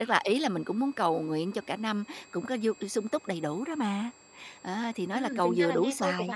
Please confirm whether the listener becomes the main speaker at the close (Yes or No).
Yes